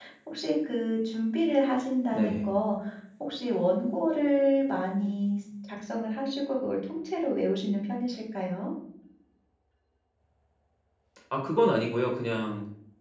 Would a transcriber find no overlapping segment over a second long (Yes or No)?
Yes